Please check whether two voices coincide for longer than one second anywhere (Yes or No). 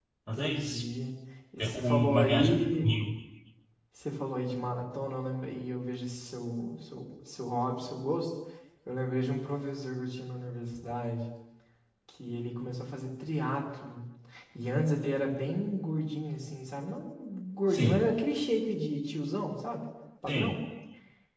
Yes